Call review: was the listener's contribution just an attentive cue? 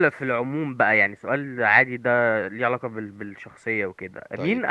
Yes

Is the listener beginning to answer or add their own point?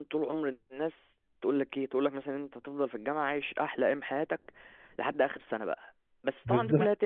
No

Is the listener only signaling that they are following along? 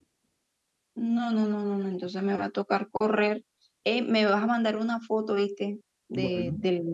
Yes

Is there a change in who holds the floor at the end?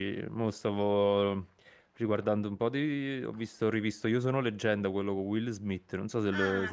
Yes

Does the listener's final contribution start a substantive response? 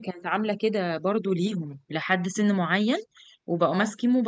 No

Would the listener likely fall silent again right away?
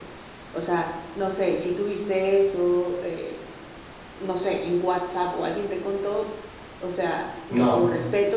Yes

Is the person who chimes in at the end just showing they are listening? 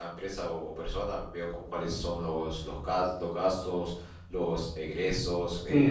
No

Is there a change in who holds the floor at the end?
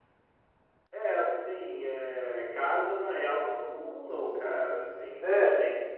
No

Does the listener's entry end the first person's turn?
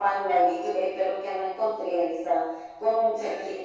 No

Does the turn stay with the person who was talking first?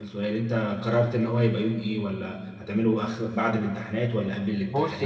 No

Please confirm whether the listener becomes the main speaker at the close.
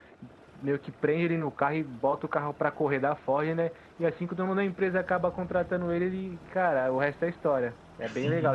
Yes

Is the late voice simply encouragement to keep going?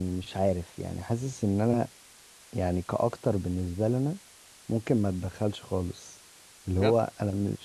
Yes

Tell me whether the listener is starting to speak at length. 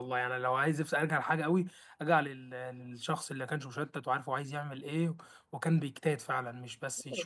Yes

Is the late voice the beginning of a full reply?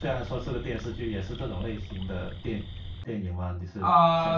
Yes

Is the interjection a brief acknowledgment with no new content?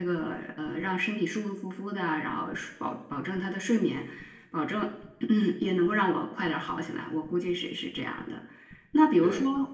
Yes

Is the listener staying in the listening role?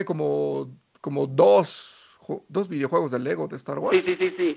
No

